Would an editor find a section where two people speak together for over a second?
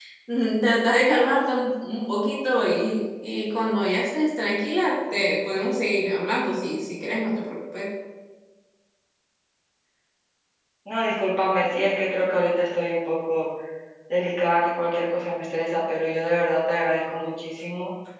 No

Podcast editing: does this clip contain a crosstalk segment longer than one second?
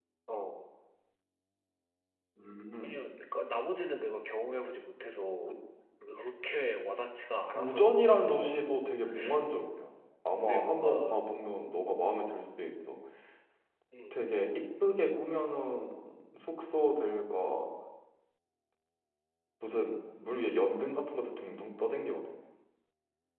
Yes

